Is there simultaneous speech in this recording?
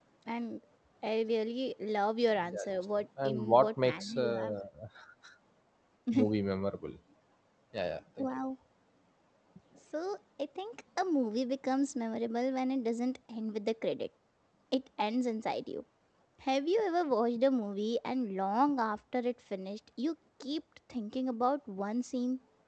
Yes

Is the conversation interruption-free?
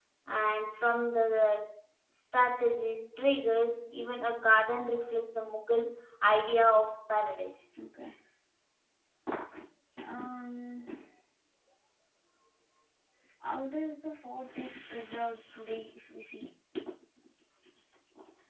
Yes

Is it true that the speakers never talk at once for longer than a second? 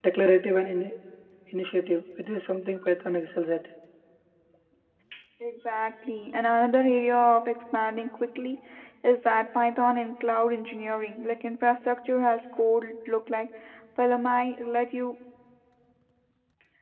Yes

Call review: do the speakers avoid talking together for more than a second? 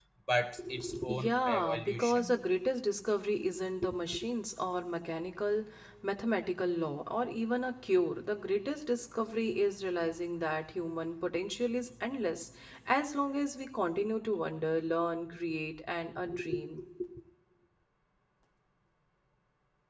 No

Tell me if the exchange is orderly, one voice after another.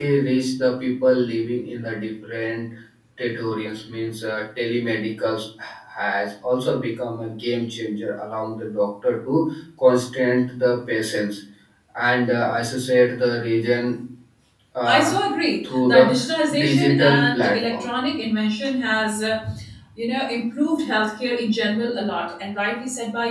No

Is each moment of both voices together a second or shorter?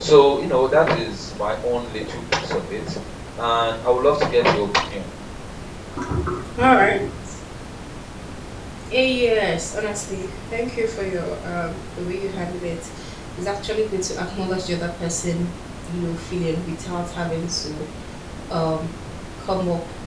Yes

